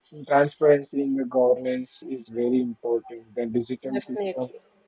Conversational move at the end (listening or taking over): listening